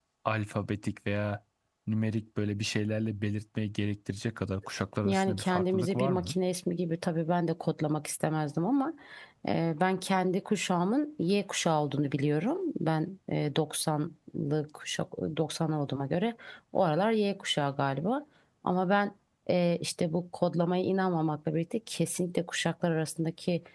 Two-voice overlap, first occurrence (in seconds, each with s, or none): 5.0 s